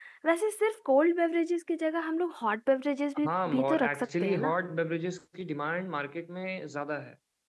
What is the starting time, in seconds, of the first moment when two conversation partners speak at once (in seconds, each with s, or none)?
3.2 s